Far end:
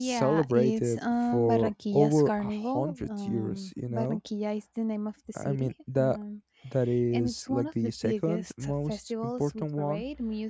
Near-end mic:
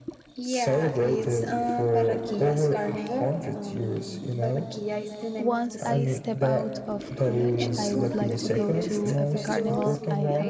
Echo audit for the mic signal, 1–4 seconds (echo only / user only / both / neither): echo only